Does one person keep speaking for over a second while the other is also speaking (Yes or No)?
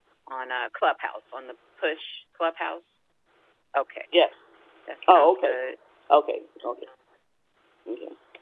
No